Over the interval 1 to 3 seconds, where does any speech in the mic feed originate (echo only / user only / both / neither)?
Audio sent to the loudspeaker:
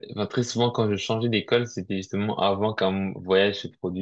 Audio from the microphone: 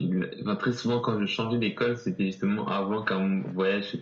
echo only